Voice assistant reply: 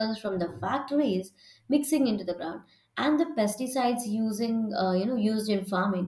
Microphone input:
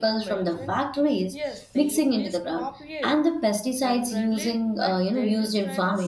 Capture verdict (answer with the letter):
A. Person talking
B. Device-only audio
A